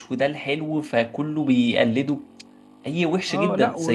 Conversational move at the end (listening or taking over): taking over